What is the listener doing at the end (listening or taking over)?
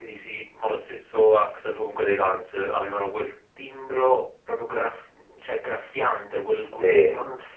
listening